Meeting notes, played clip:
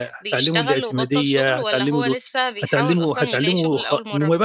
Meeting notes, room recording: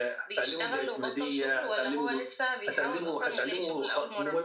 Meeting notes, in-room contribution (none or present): none